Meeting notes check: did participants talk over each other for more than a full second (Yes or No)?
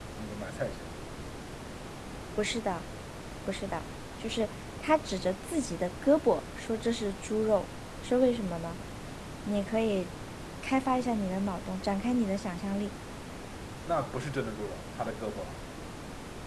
No